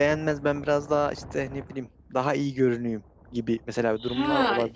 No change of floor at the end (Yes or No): No